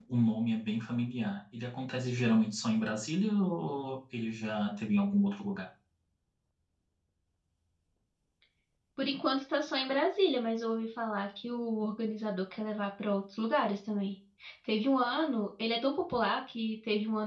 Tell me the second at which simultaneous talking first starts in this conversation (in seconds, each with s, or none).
none